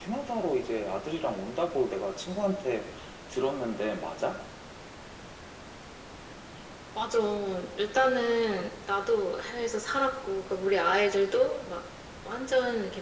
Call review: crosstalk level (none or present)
none